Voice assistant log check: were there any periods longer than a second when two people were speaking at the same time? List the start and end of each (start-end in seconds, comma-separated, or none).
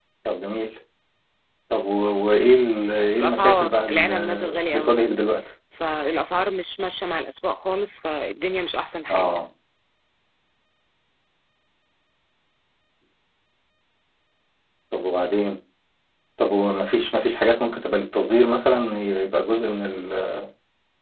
3.2-5.0